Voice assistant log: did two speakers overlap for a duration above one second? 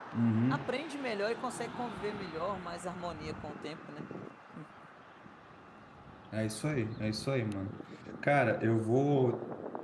No

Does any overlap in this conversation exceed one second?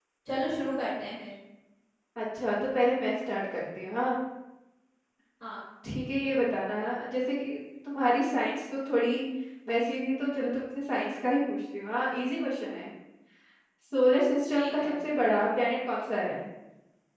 No

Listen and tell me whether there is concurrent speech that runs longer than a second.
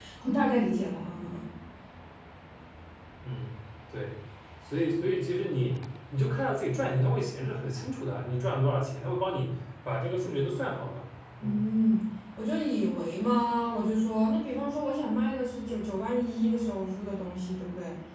No

